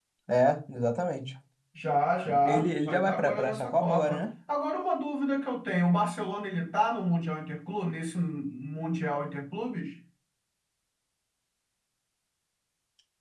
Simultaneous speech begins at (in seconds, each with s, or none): 2.4 s